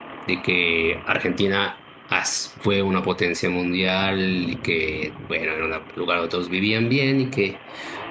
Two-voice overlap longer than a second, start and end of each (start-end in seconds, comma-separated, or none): none